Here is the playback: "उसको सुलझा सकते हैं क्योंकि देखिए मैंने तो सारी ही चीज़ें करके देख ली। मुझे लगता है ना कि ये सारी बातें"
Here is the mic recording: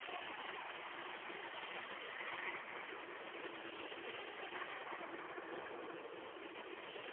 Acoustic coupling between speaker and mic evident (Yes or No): No